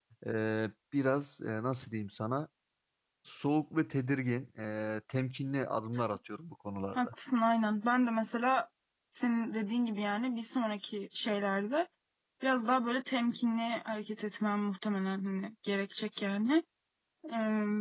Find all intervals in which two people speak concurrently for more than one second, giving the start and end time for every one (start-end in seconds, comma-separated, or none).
none